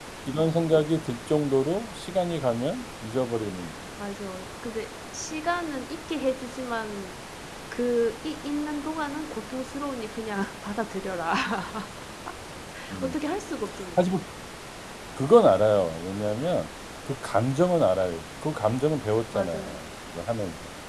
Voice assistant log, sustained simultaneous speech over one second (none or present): none